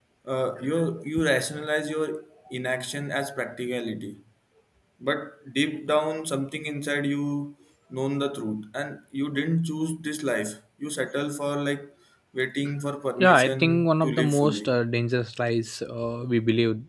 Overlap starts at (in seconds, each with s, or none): 13.2 s